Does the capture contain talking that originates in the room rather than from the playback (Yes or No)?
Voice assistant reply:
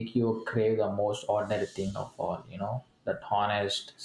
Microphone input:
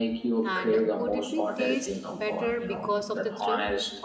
Yes